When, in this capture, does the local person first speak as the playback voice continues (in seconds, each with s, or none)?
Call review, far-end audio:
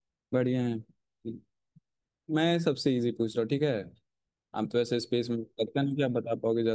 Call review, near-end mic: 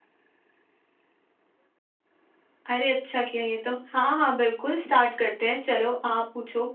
2.7 s